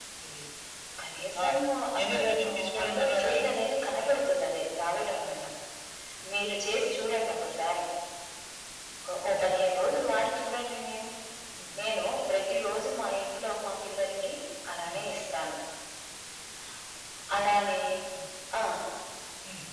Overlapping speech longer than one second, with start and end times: 2.0-3.4

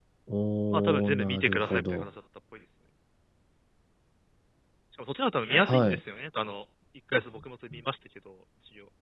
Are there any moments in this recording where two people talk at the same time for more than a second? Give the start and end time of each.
0.7-2.1

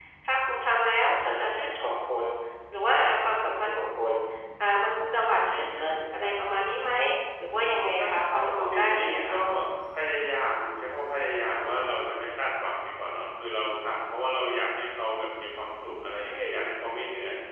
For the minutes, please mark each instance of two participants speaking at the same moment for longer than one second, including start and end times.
7.5-9.4

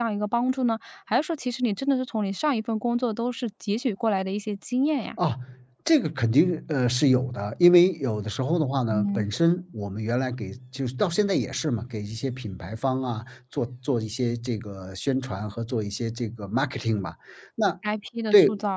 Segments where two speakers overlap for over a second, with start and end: none

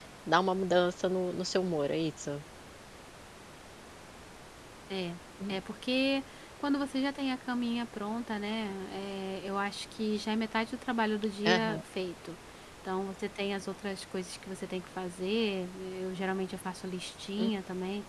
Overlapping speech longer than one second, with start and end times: none

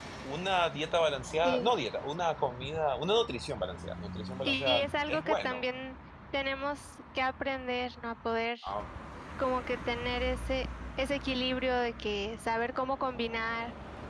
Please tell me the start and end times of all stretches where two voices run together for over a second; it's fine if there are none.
4.5-5.7

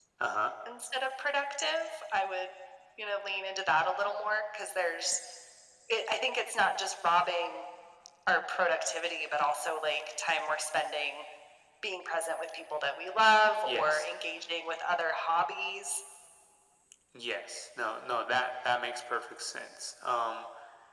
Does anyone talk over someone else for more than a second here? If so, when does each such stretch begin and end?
none

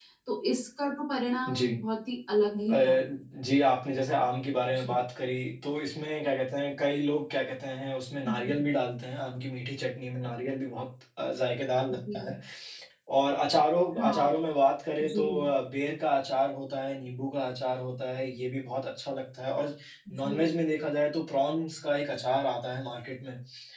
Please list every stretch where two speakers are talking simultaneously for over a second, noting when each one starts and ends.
none

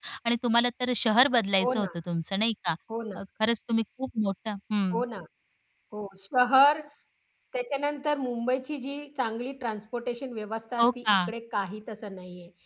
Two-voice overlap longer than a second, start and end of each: none

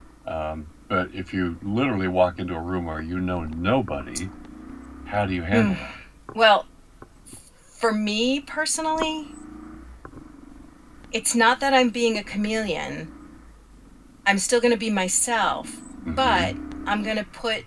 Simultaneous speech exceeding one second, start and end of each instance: none

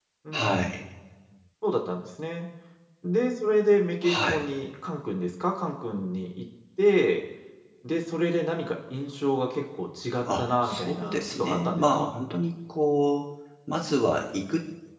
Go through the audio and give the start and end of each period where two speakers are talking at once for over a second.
10.4-12.1

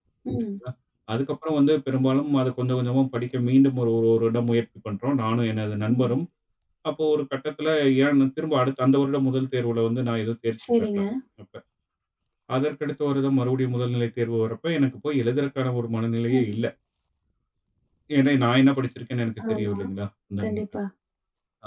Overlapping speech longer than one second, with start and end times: none

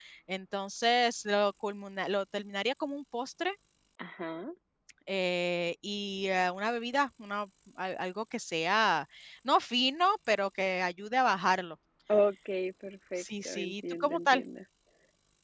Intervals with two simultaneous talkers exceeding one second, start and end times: 13.2-14.4

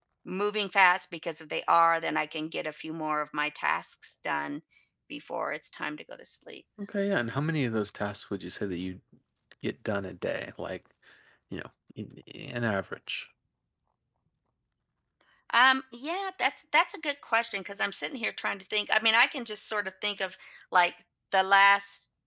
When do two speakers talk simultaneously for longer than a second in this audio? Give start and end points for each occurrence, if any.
none

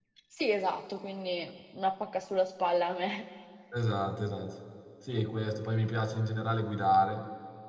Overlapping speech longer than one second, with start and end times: none

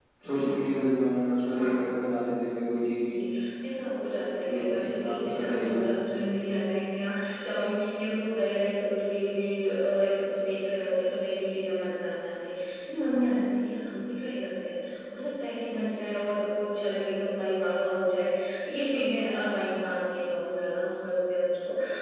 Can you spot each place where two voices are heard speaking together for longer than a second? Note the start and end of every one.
4.4-5.8

